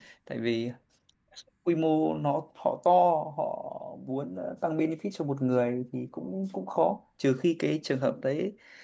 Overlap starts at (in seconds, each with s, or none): none